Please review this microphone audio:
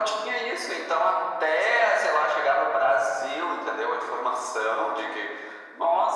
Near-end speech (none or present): none